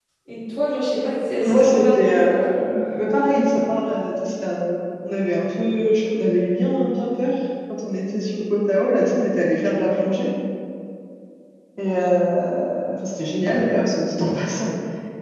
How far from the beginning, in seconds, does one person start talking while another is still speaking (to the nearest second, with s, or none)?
1 s